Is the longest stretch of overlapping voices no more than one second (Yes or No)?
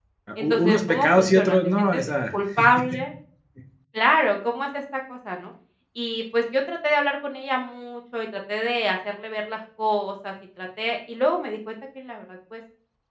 No